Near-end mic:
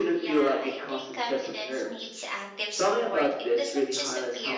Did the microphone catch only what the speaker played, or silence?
No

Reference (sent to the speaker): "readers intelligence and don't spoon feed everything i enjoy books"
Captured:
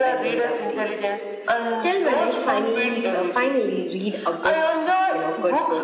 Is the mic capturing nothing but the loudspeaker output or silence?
No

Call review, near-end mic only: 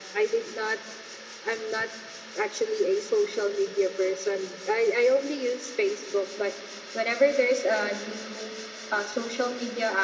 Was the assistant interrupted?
No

